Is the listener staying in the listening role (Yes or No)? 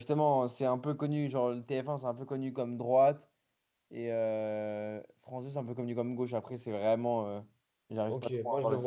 No